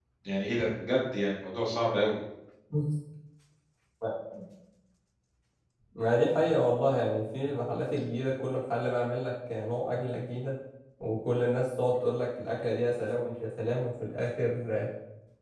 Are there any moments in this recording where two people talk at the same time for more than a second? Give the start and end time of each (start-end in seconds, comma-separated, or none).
none